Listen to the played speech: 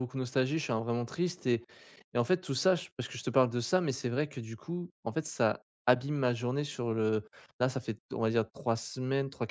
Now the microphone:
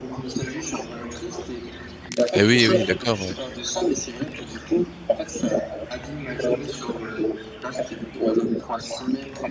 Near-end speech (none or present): present